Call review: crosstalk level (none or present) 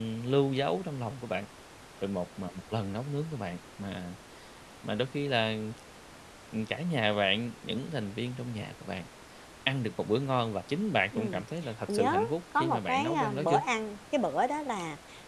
present